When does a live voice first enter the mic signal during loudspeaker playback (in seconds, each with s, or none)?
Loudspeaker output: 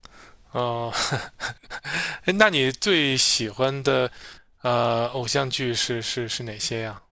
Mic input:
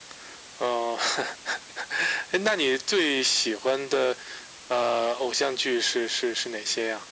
none